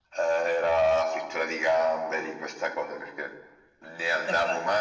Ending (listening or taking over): listening